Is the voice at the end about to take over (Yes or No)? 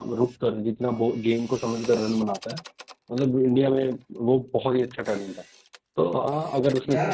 No